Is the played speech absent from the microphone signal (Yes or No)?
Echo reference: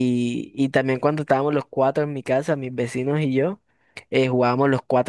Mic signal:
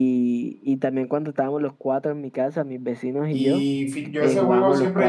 No